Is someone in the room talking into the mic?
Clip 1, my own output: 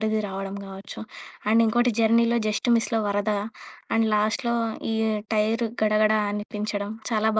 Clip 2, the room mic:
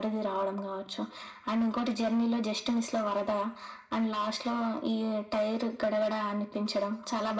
No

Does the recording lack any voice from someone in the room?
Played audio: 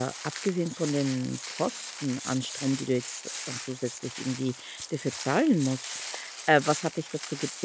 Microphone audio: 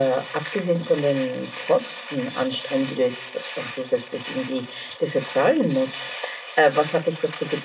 Yes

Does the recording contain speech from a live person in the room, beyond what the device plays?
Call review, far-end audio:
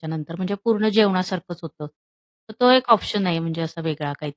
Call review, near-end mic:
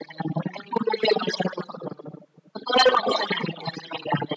Yes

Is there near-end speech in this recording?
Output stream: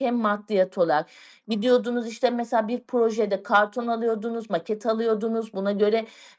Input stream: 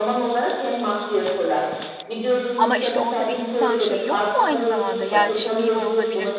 Yes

